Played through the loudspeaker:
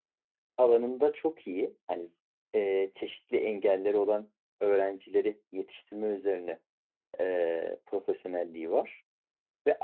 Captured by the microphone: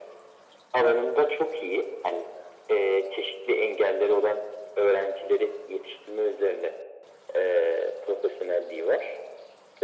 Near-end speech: none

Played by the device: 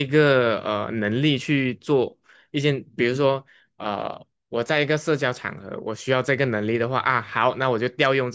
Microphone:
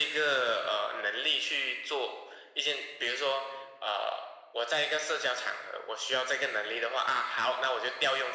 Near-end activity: none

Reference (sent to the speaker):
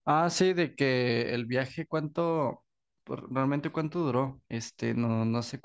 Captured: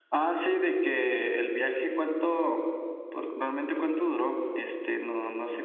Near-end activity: none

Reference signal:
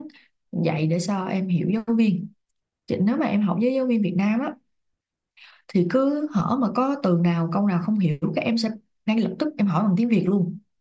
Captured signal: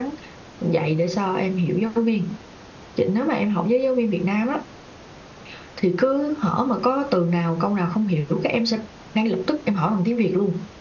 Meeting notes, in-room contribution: none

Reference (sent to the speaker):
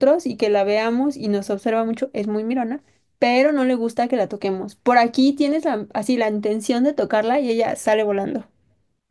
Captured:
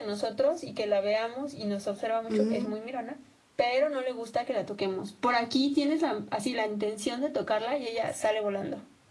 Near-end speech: present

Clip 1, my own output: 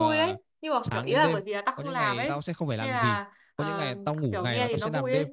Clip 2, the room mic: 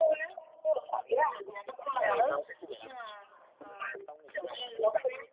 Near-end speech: none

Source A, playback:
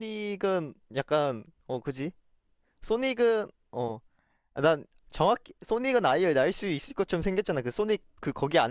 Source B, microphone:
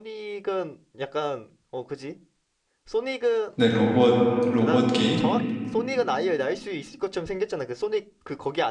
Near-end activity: present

